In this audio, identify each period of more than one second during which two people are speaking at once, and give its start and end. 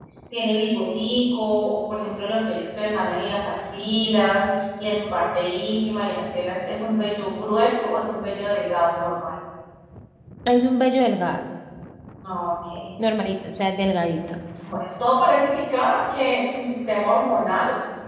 none

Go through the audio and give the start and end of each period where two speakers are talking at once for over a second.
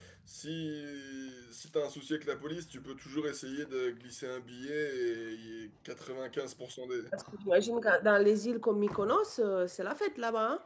none

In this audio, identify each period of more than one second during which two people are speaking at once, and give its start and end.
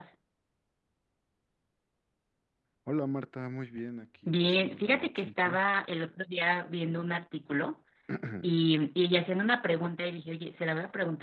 4.3-5.6

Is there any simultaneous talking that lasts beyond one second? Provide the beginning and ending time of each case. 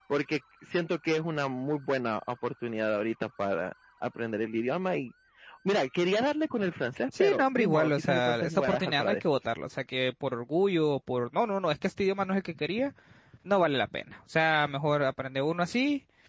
7.2-9.2

